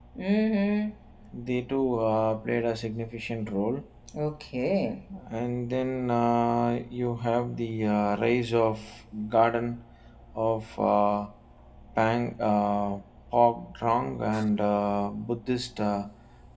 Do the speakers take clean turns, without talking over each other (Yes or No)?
Yes